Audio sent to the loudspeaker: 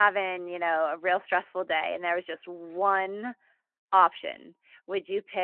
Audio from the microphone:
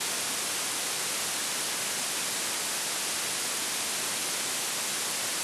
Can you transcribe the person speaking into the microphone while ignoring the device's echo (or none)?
none